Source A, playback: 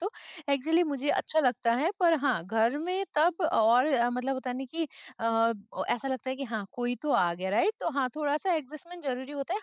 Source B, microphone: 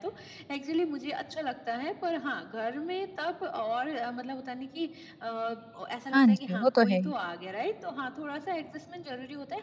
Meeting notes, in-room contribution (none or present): present